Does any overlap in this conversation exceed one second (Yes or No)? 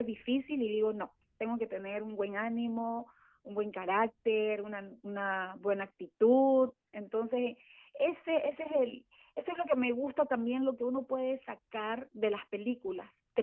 No